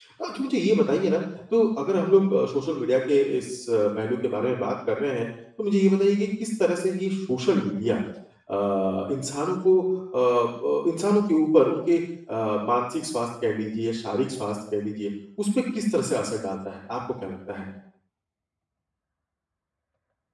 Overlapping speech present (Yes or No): No